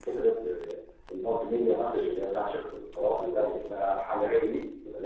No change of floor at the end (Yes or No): Yes